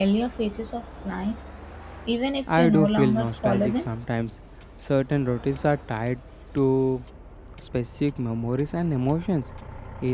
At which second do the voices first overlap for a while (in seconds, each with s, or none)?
2.6 s